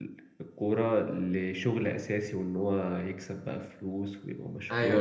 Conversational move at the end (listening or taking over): taking over